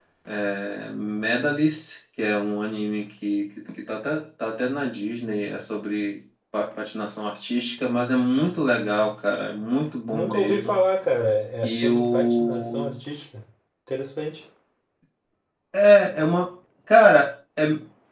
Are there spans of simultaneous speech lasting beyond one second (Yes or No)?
Yes